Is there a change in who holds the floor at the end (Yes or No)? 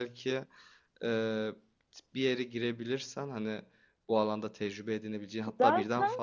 No